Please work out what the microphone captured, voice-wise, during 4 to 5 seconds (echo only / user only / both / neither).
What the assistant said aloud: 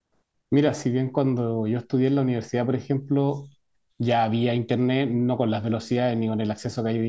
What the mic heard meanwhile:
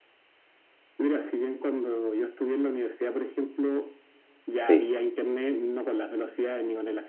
both